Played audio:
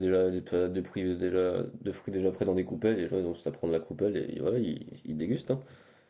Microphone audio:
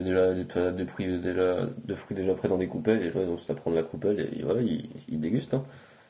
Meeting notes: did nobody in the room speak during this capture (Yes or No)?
Yes